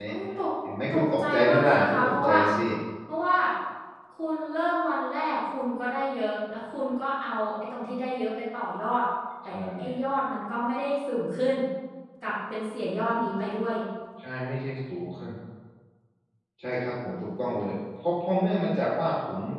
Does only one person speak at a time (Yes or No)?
No